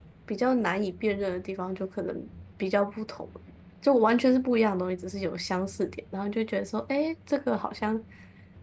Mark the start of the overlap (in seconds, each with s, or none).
none